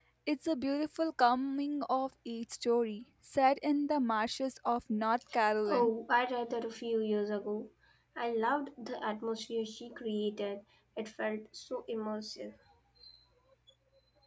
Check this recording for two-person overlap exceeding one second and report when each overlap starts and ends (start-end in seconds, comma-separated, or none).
none